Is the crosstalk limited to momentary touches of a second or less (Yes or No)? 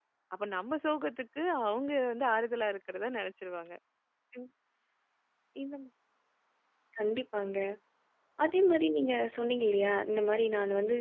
Yes